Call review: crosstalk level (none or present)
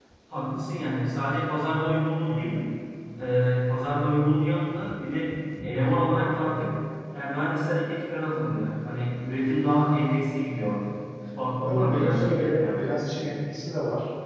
present